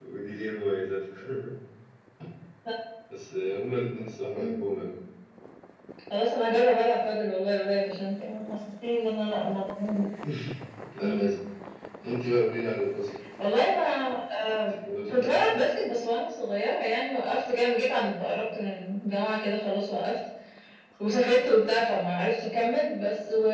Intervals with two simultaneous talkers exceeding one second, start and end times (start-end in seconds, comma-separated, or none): none